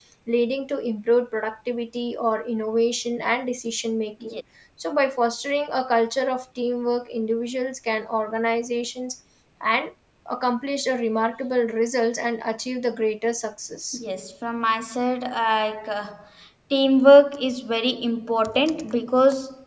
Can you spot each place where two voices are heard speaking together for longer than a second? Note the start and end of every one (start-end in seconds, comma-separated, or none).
none